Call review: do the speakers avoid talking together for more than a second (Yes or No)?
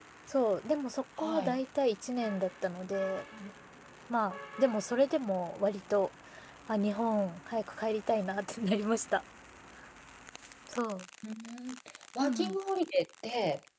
Yes